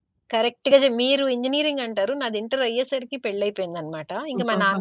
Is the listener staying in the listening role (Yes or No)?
Yes